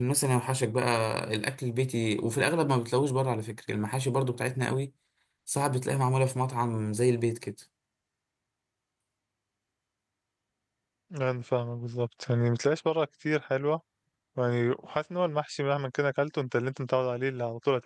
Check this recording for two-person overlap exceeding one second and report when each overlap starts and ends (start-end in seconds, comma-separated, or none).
none